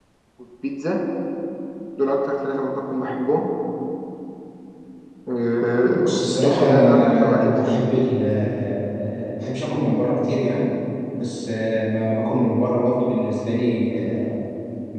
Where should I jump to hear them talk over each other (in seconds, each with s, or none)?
6.0 s